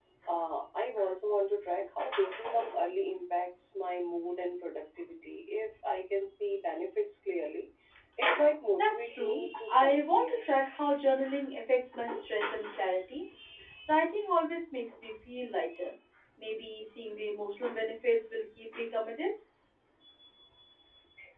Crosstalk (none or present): present